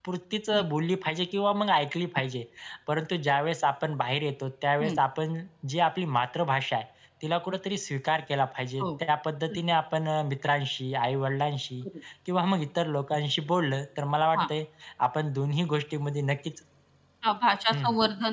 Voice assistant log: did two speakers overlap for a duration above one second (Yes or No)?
No